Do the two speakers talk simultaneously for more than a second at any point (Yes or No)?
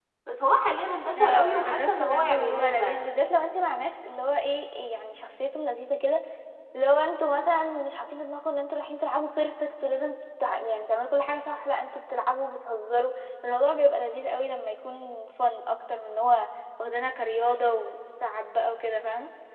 Yes